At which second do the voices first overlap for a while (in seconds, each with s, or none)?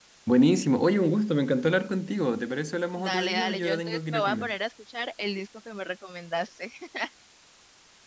3.0 s